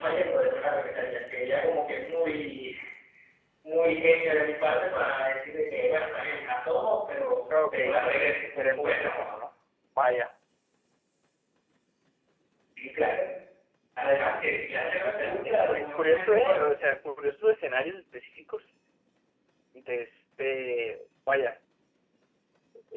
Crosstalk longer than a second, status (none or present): present